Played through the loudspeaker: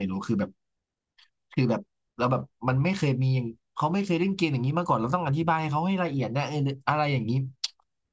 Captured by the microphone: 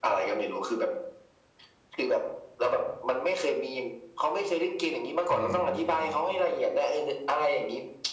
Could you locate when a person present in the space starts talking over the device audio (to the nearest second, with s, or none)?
5 s